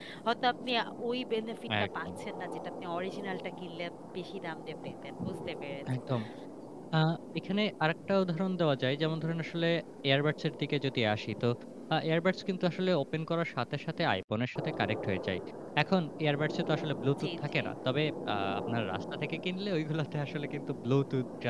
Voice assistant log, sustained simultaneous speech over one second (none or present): none